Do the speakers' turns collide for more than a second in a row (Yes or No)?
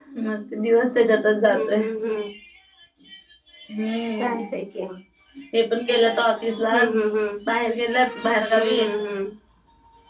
No